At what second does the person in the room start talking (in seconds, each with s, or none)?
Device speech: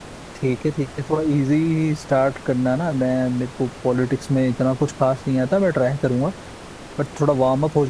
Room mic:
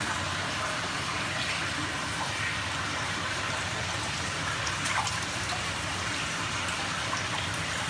none